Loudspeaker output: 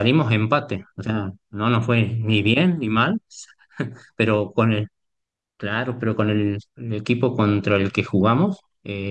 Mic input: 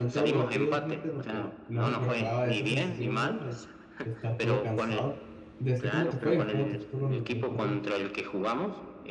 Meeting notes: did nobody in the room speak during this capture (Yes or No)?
No